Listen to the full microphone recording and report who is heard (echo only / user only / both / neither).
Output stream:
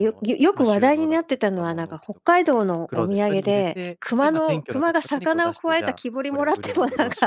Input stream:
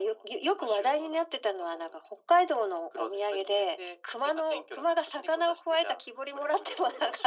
echo only